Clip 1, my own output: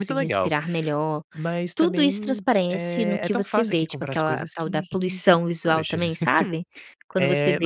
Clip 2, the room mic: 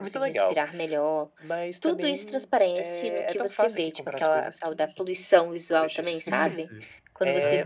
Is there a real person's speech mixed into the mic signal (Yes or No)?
Yes